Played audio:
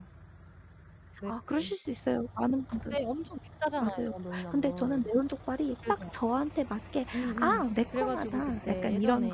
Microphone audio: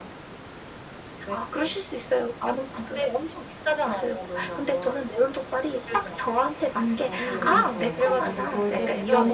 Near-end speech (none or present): present